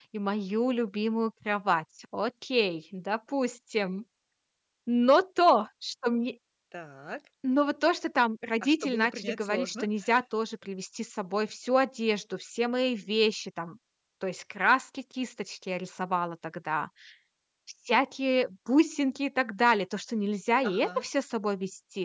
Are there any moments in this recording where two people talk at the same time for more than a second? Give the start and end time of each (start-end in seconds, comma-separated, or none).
8.6-9.9